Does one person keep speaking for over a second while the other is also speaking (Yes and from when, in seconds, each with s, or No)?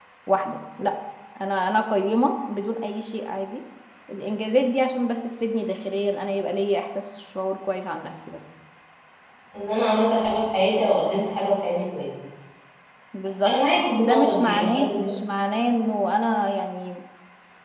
Yes, from 13.4 s